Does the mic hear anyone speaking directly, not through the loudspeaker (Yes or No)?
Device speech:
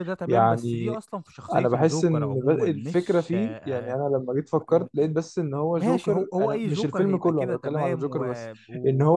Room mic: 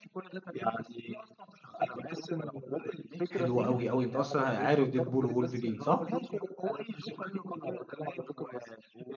Yes